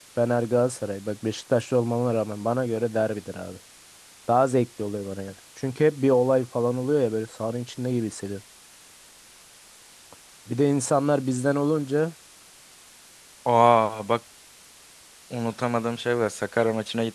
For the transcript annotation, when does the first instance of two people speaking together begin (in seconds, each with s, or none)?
none